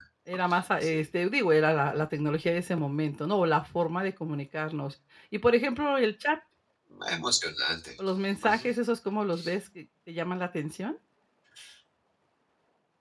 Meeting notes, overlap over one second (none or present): none